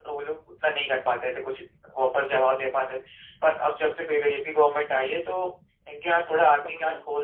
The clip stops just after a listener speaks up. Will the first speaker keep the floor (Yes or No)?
Yes